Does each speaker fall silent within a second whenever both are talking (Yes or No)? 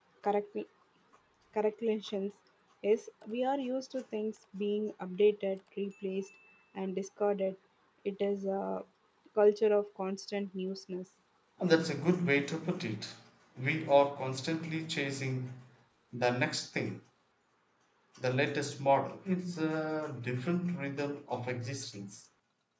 Yes